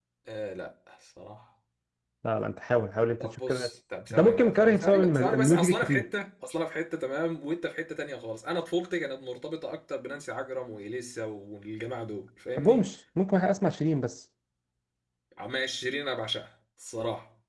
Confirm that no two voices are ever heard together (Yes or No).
No